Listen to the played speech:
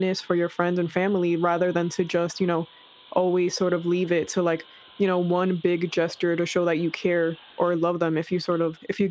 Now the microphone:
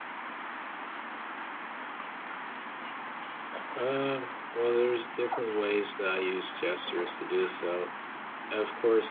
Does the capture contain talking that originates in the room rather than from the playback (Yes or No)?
Yes